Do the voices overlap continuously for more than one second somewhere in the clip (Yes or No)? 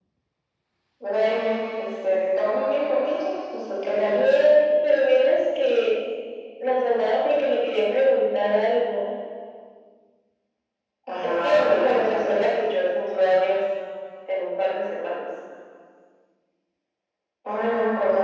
Yes